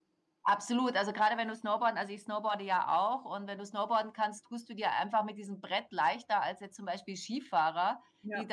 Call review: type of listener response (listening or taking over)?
listening